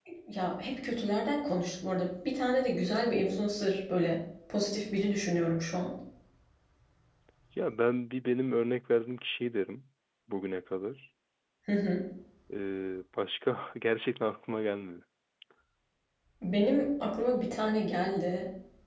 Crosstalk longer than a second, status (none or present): none